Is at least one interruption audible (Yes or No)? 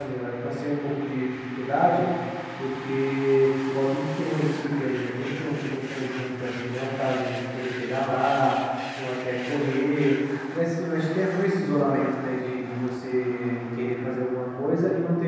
No